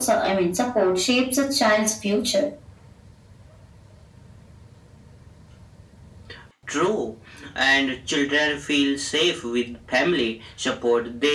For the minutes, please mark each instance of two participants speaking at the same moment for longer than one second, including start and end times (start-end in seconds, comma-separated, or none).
none